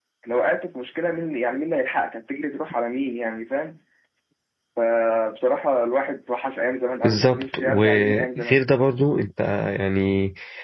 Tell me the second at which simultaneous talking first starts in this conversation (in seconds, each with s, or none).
7.0 s